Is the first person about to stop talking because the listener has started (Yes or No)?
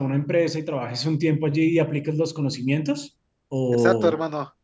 Yes